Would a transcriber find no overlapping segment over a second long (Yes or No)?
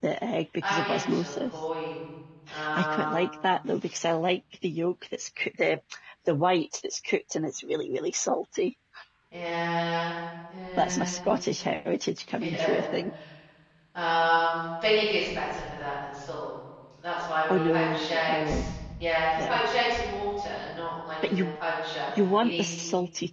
No